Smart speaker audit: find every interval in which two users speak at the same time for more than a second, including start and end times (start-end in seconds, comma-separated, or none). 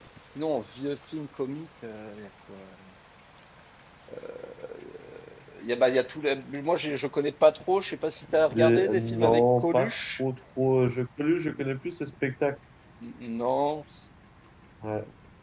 8.5-10.2